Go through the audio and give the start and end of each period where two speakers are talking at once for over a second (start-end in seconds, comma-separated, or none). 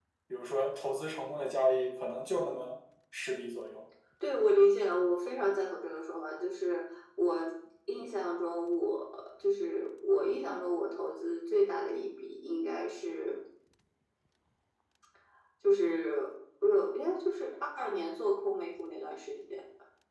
none